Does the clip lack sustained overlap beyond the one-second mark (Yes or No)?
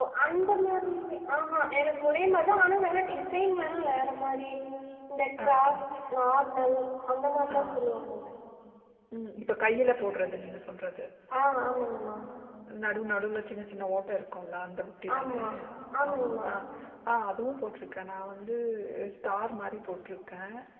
Yes